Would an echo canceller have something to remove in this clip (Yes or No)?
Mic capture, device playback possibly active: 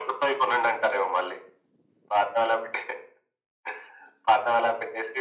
Yes